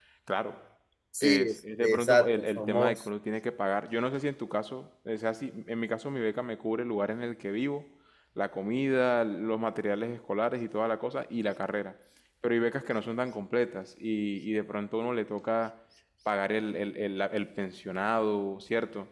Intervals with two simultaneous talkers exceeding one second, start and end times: 1.2-3.0

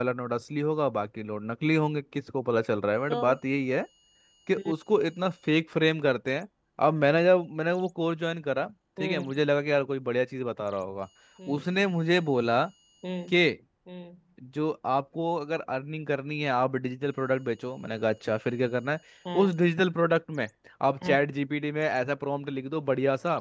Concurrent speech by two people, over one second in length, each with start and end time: none

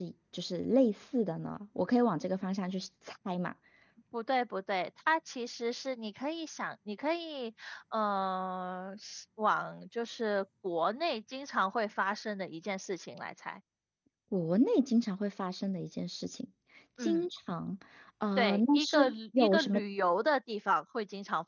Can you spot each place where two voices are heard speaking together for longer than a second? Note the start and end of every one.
18.4-19.8

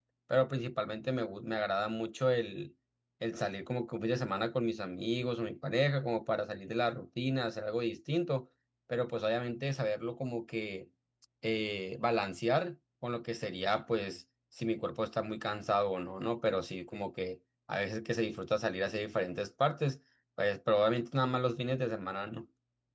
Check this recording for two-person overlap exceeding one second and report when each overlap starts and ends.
none

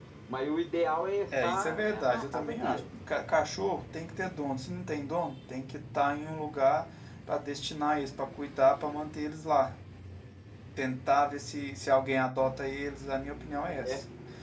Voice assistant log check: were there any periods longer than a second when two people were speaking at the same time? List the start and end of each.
1.4-2.8

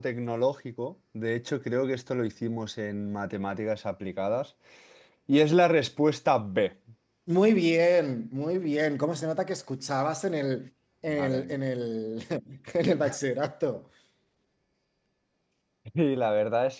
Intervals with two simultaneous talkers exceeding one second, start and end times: none

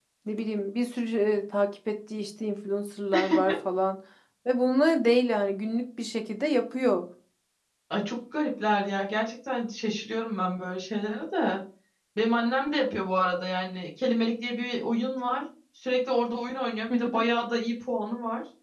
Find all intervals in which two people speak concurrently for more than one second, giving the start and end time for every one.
none

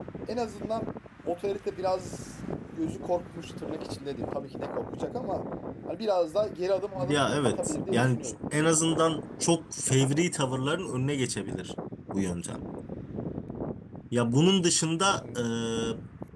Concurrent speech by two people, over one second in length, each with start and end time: 7.0-8.3

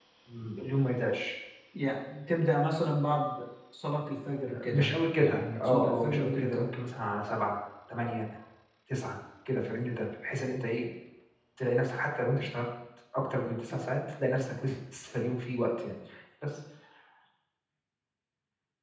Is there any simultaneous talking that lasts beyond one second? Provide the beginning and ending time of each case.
4.7-6.6

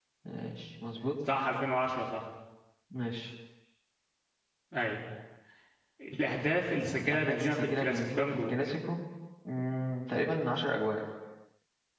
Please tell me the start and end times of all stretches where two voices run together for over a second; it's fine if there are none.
7.0-8.5

